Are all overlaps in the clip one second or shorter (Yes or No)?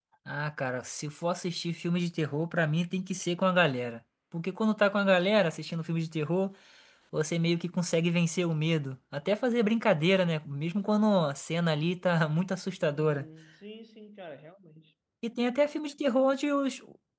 Yes